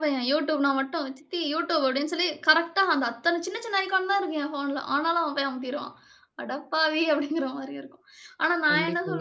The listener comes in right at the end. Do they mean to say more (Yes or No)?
No